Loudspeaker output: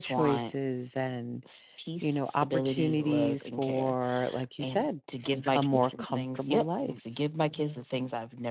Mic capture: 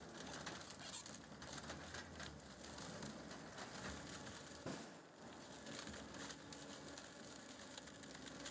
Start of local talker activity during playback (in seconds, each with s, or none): none